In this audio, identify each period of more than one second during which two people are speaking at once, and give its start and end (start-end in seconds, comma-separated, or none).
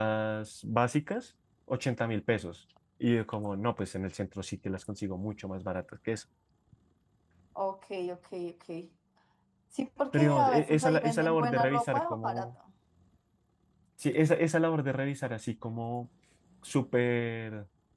10.1-12.5